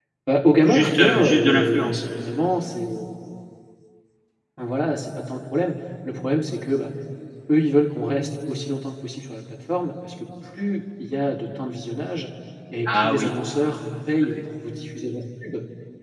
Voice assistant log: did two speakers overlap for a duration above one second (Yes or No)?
Yes